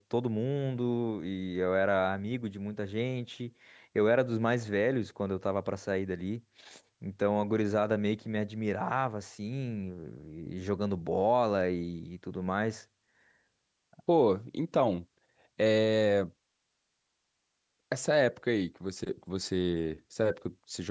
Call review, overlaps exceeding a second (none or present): none